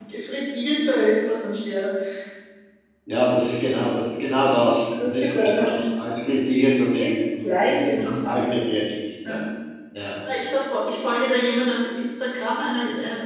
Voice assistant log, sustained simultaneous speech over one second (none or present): present